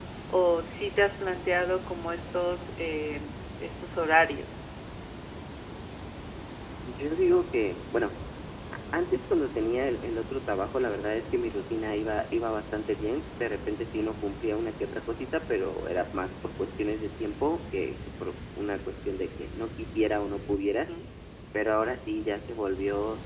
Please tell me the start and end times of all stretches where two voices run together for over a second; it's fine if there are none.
none

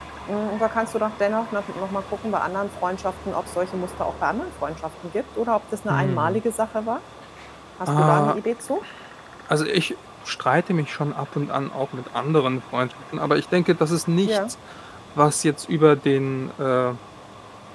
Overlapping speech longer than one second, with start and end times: none

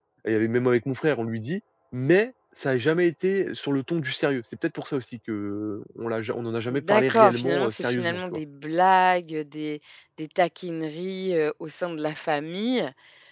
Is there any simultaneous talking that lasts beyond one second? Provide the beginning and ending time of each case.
6.7-8.4

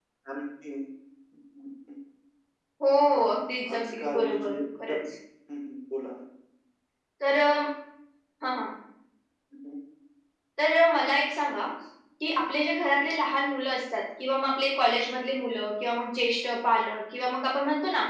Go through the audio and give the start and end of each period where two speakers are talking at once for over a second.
3.7-5.0

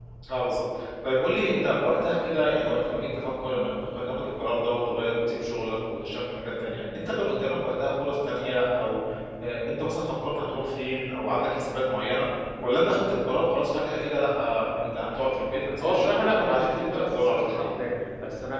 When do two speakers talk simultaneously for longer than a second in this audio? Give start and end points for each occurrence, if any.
15.8-17.7

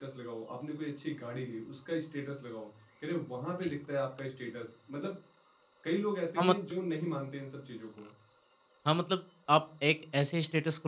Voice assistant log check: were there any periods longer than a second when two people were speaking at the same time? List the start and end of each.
none

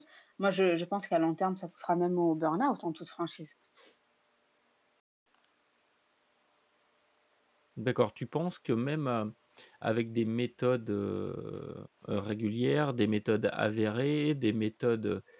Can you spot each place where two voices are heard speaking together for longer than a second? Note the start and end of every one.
none

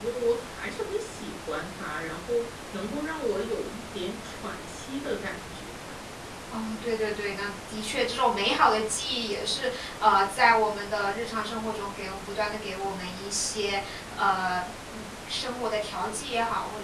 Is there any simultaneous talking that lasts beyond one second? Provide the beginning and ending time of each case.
none

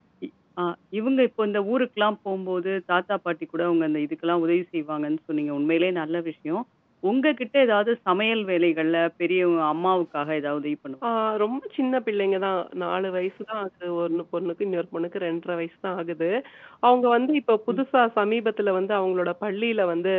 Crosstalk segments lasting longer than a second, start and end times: none

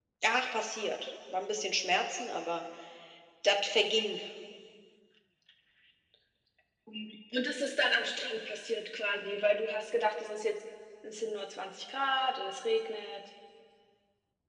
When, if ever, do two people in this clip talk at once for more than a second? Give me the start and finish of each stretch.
none

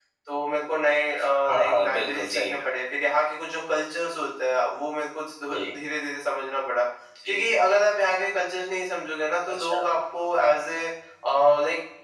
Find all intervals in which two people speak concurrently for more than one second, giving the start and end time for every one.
1.5-2.7

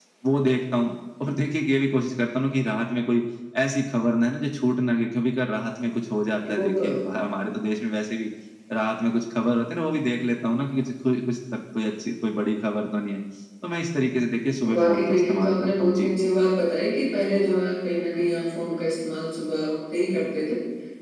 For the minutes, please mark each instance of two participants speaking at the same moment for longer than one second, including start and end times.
14.7-16.1

